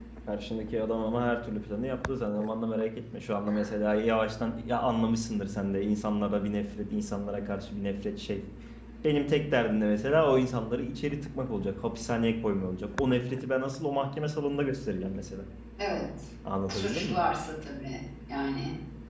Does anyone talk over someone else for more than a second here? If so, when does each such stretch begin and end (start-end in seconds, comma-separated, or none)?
none